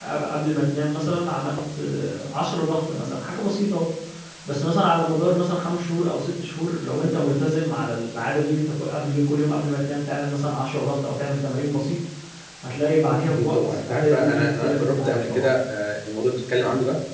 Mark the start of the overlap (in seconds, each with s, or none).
13.3 s